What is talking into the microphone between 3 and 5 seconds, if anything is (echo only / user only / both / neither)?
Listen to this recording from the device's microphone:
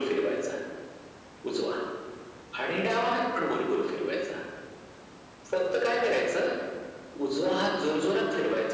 echo only